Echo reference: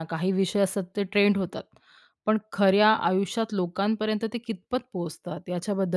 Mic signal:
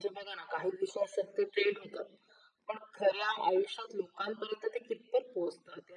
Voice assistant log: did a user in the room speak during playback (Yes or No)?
No